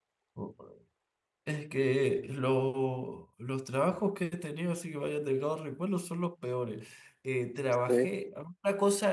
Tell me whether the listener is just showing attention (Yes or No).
Yes